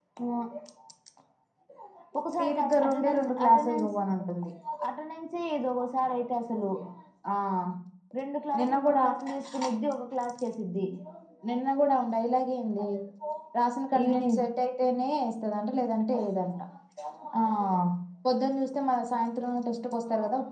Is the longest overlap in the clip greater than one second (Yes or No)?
Yes